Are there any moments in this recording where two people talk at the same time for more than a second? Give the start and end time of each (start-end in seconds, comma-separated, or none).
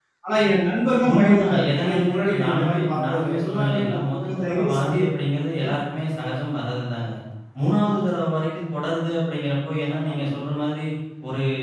1.1-5.0